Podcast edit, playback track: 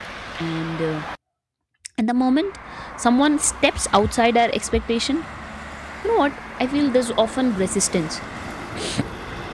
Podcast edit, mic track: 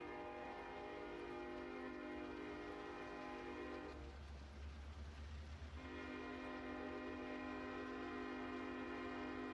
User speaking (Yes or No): No